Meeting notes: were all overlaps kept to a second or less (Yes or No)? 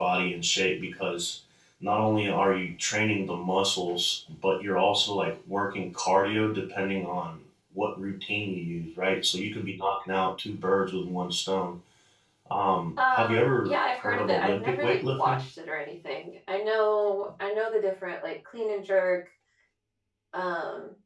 No